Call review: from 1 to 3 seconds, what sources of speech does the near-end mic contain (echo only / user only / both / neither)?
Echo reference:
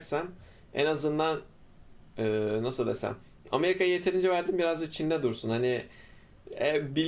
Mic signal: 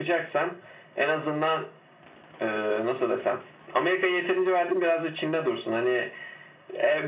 echo only